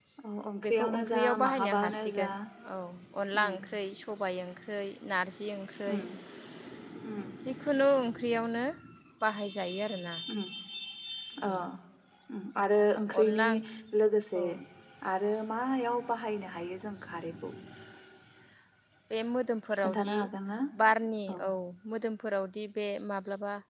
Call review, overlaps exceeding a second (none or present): present